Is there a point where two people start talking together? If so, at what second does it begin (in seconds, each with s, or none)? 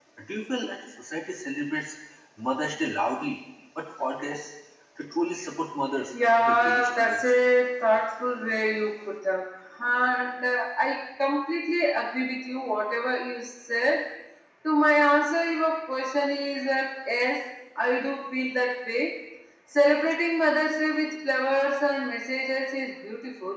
6.1 s